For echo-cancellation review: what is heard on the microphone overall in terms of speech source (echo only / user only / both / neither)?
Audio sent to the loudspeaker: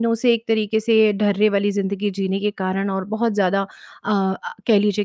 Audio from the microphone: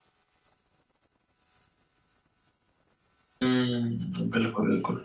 user only